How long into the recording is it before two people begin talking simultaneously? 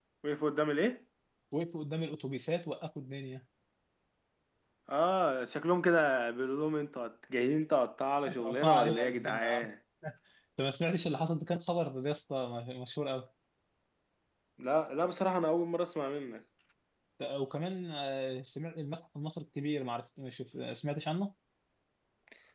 8.2 s

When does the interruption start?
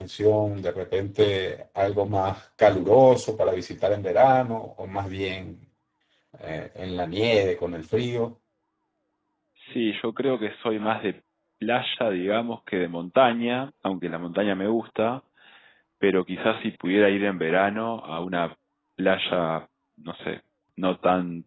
none

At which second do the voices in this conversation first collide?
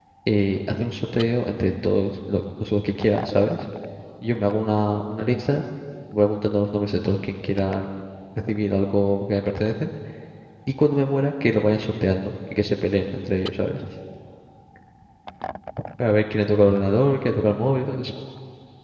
none

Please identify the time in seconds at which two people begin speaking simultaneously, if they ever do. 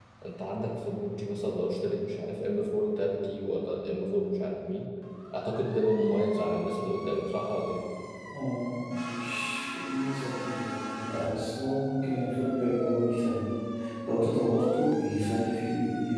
none

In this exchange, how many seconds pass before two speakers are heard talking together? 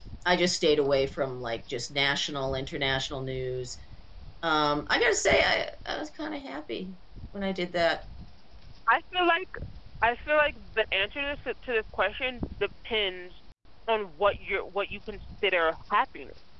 none

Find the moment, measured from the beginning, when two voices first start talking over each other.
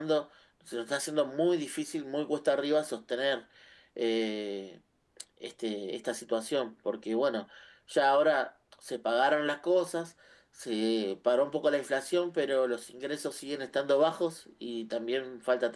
none

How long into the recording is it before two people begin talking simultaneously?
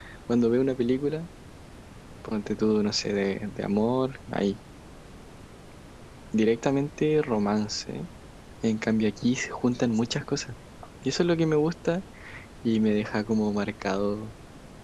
none

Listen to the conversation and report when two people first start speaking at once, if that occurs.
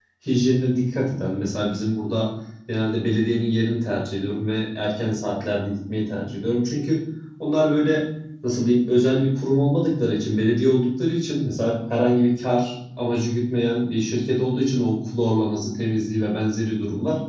none

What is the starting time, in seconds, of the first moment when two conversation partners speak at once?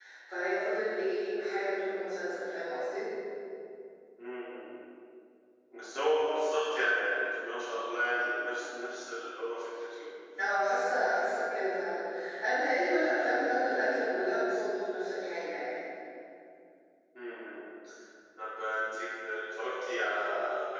none

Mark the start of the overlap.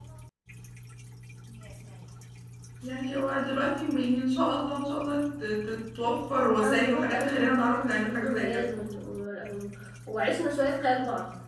6.6 s

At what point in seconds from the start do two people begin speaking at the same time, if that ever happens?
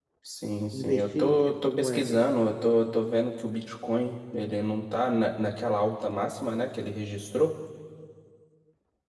0.7 s

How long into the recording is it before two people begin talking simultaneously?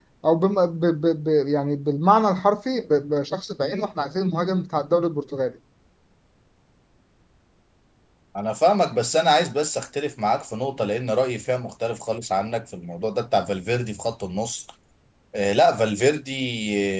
none

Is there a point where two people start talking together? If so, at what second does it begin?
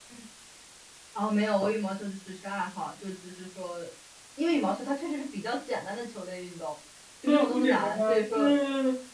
7.3 s

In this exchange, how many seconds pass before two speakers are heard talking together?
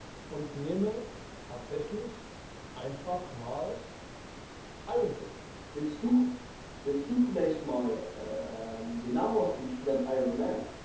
none

